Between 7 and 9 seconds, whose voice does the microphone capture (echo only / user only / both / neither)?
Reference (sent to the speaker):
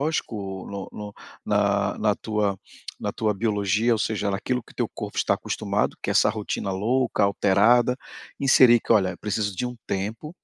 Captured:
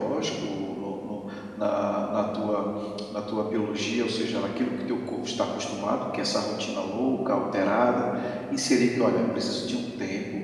echo only